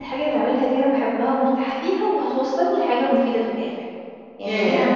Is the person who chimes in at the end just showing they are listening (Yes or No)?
No